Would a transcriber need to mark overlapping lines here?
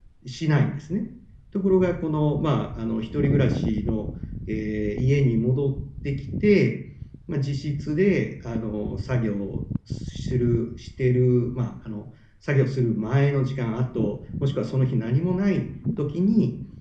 No

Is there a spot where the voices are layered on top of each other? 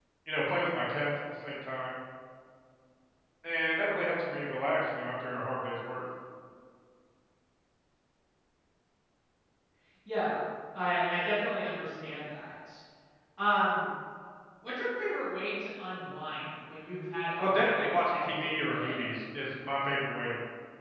Yes, from 17.4 s

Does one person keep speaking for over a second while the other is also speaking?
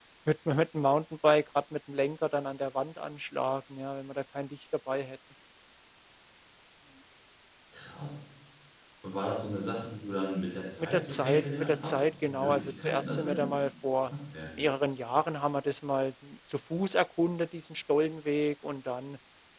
Yes, from 10.8 s

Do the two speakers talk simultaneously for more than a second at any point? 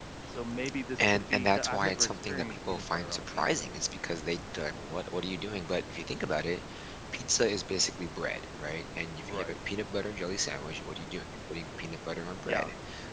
Yes, from 1.0 s

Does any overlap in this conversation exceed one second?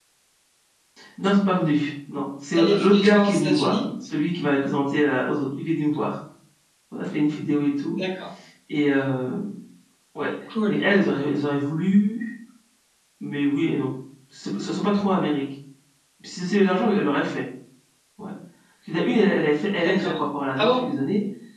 Yes, from 2.5 s

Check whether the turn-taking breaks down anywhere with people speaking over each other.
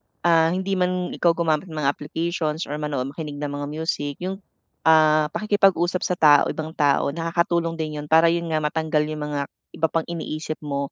No

